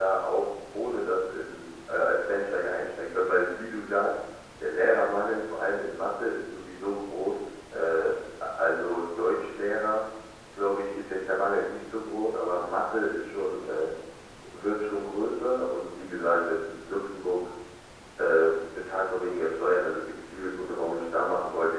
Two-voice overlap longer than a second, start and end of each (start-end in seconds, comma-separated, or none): none